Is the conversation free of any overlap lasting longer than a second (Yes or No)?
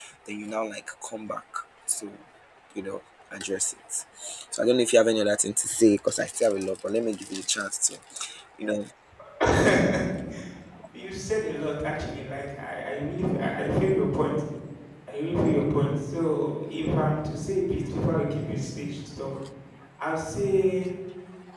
Yes